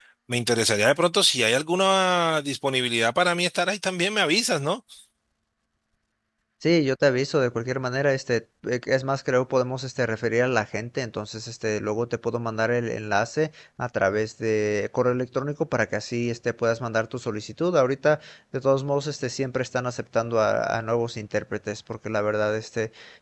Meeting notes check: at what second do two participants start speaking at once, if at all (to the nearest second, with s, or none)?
none